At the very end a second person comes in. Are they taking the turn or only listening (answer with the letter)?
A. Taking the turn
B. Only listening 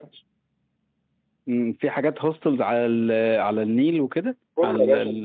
A